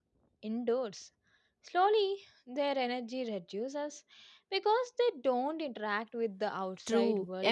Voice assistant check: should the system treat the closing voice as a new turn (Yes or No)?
Yes